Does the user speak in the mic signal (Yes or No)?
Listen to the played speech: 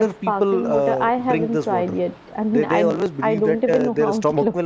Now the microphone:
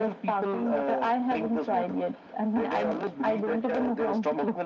No